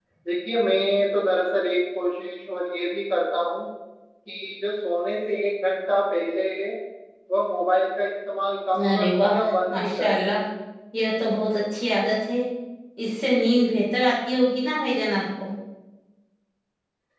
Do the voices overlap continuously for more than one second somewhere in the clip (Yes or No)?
Yes